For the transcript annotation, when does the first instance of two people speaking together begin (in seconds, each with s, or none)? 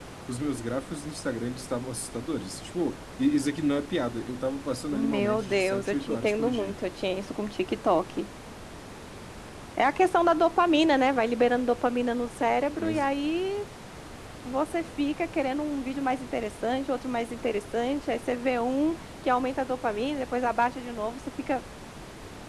4.9 s